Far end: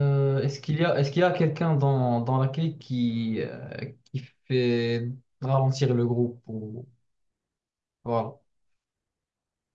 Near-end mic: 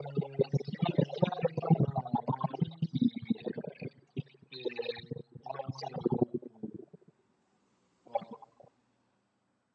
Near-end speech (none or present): none